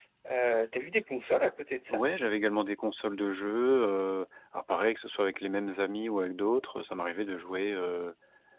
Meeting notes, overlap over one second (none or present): none